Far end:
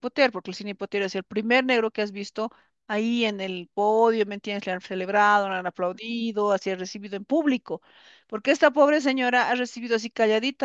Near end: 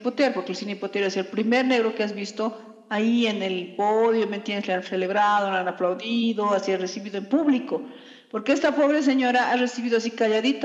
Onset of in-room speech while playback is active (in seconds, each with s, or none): none